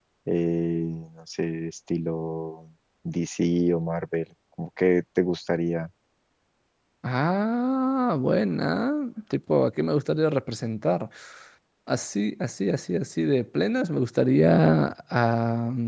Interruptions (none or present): none